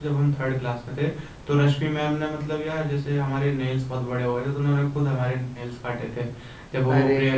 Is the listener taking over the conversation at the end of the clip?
No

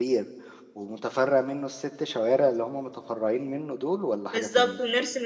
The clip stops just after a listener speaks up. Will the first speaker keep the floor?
No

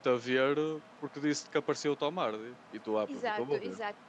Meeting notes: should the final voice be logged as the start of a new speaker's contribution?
Yes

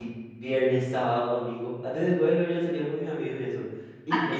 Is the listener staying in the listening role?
Yes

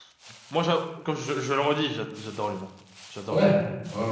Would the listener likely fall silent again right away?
No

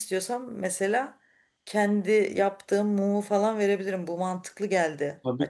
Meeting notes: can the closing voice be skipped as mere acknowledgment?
No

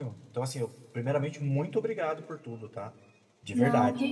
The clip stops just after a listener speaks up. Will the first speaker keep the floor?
No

